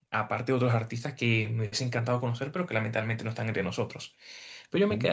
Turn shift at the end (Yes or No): No